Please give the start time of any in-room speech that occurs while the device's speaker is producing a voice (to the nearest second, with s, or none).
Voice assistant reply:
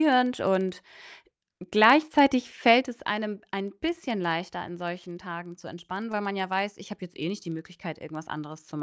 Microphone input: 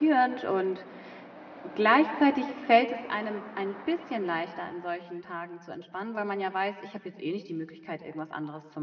none